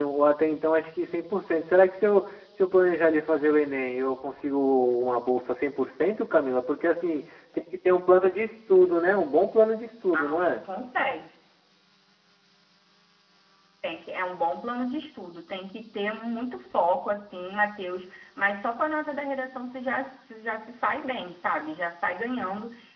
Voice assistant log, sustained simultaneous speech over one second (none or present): none